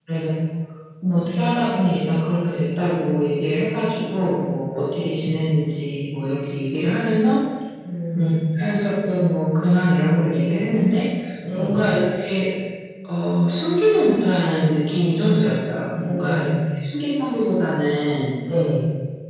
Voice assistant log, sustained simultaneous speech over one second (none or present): none